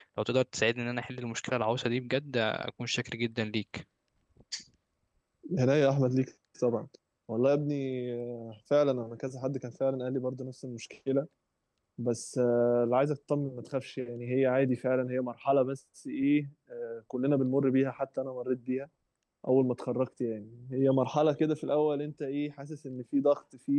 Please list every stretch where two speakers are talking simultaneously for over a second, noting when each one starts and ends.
none

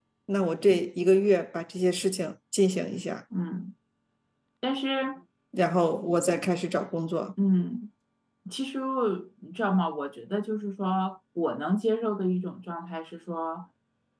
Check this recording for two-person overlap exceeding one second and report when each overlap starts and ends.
none

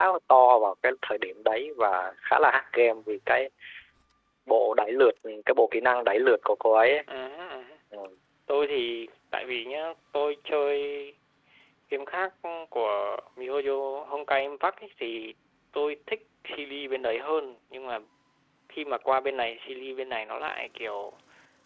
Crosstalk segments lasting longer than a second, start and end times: none

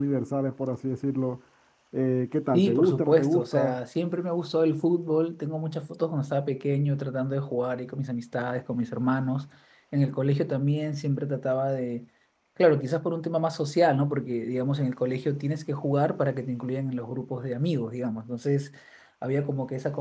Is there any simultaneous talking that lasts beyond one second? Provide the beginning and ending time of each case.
2.5-3.8

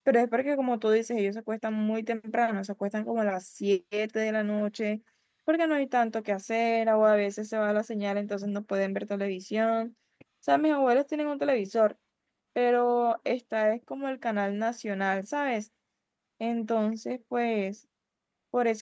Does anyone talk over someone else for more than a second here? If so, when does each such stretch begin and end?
none

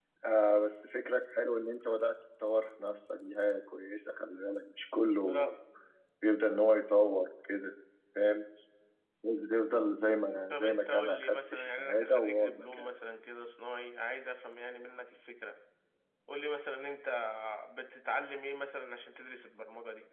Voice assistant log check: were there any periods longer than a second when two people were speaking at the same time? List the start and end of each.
10.5-12.9

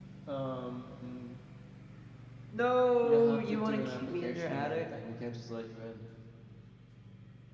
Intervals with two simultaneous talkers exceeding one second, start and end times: 3.0-4.9

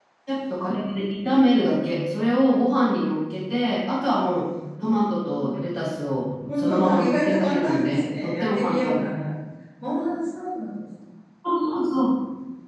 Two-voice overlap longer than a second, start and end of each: 6.6-9.0

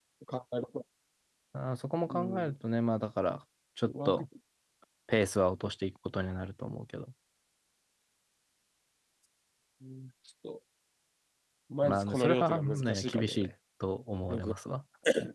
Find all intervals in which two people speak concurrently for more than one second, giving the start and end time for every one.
11.8-13.5

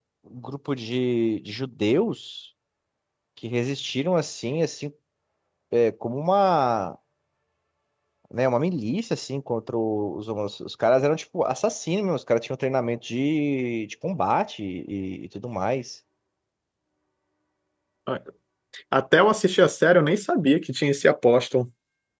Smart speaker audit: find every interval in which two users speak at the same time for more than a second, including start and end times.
none

